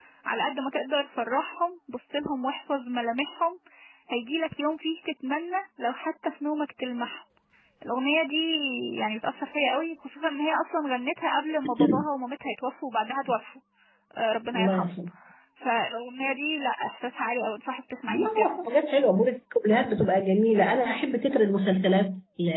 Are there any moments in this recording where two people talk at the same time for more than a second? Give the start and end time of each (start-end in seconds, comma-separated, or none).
none